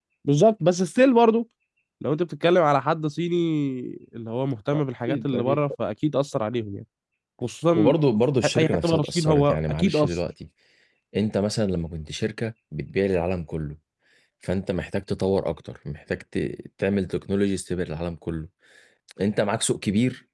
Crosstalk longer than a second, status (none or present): present